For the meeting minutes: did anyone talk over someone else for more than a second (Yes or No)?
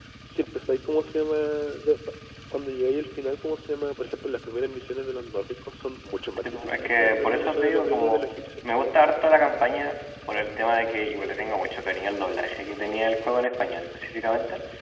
Yes